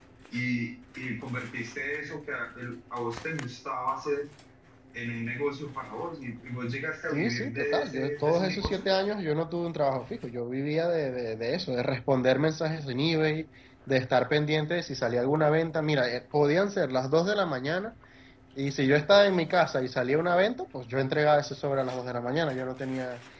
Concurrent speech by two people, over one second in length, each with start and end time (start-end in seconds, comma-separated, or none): 7.1-8.9